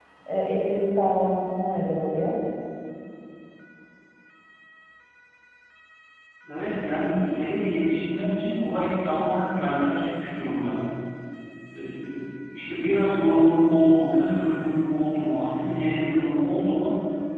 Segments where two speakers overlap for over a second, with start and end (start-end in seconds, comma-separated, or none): none